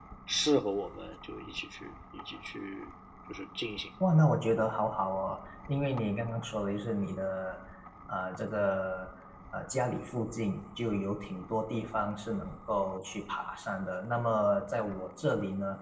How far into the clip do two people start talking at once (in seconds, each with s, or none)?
none